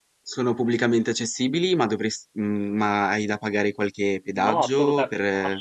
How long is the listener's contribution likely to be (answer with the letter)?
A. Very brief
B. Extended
B